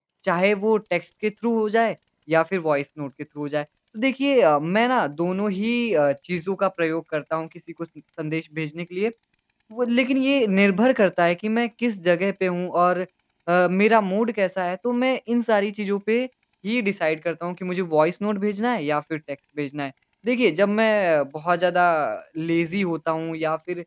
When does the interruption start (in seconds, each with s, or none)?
none